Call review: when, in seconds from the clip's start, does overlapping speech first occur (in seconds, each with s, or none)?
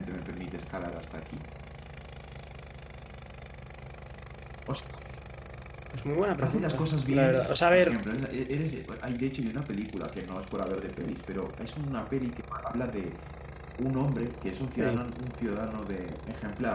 6.4 s